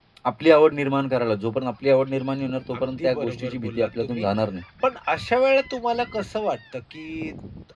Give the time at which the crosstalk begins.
3 s

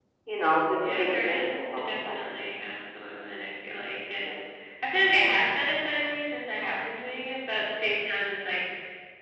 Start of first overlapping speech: 1 s

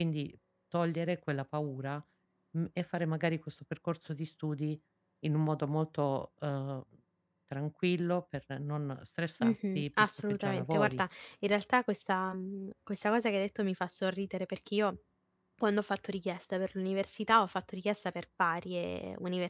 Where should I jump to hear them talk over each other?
9 s

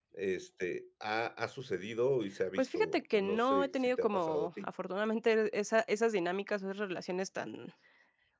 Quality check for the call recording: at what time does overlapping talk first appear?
3 s

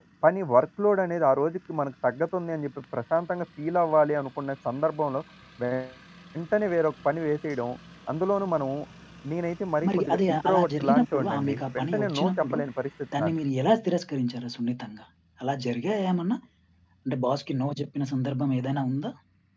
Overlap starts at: 10 s

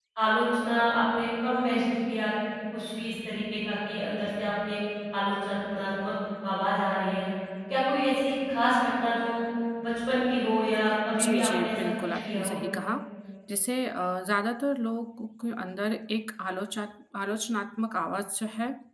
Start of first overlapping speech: 11 s

